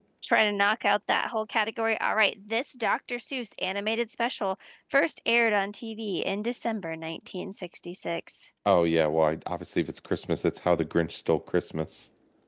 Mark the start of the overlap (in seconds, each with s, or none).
none